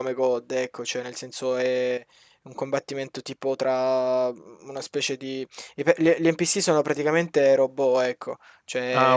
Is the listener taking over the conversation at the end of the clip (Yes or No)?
No